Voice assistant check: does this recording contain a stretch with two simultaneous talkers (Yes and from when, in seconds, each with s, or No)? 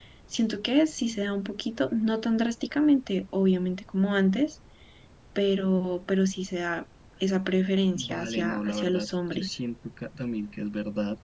Yes, from 8.0 s